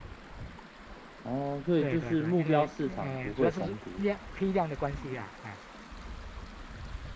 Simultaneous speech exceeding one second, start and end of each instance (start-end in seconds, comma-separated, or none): 1.8-4.0